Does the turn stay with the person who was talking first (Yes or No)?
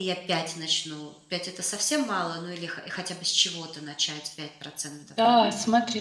No